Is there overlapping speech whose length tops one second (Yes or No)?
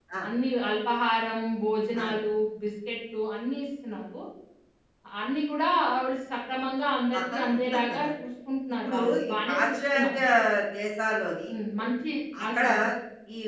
Yes